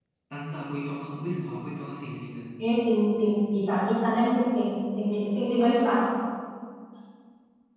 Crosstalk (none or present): none